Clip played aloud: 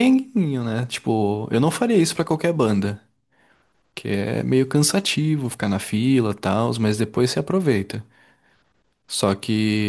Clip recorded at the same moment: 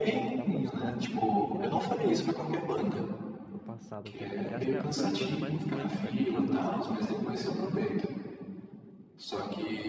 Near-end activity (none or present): present